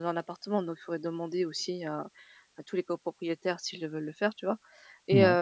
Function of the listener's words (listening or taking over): listening